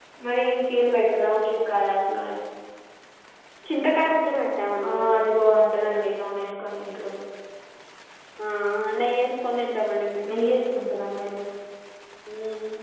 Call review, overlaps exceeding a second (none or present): none